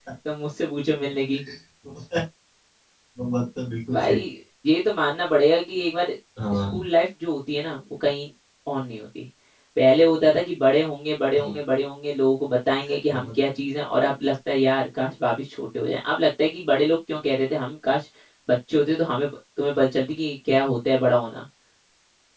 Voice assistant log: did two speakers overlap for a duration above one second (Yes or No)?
No